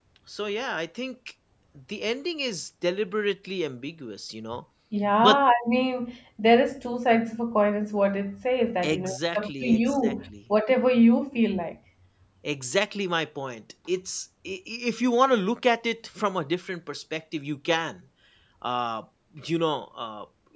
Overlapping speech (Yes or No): Yes